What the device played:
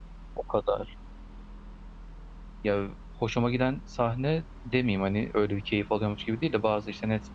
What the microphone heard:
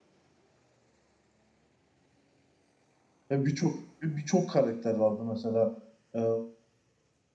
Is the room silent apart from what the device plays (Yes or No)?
No